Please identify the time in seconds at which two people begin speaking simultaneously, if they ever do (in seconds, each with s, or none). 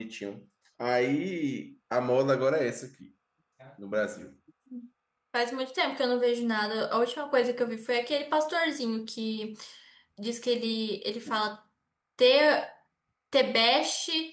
none